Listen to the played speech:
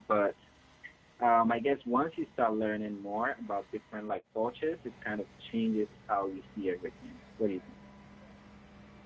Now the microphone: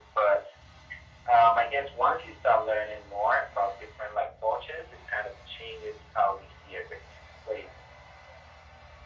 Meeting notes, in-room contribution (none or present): none